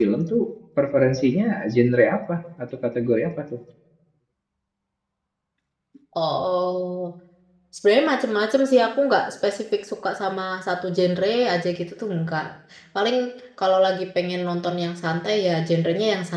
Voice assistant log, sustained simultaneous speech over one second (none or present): none